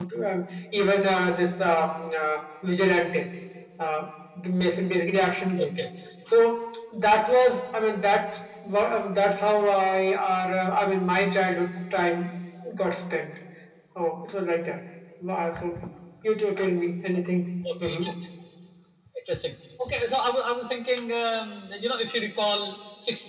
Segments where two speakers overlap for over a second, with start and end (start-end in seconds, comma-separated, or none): none